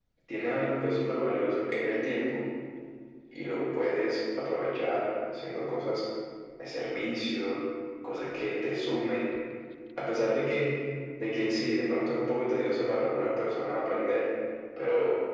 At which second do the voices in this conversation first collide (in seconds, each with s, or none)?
none